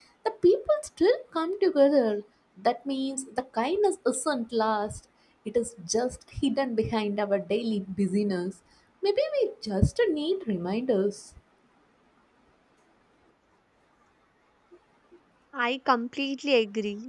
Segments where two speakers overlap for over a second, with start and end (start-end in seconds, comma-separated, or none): none